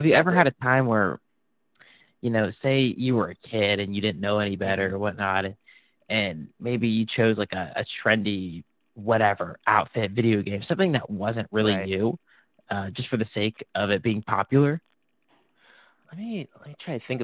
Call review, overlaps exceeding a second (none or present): none